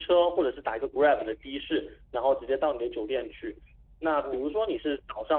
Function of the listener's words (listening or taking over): listening